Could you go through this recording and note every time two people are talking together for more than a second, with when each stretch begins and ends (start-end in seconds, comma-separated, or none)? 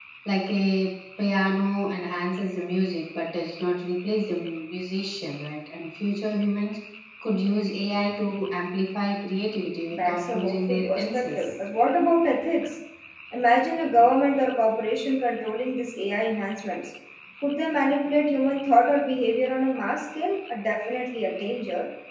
9.9-11.5